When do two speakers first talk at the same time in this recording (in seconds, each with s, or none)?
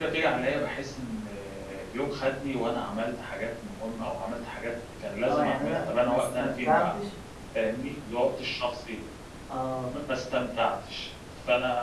5.2 s